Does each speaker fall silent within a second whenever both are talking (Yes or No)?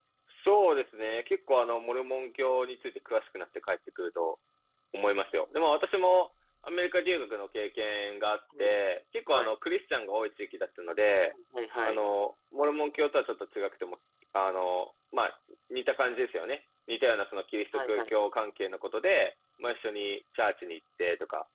Yes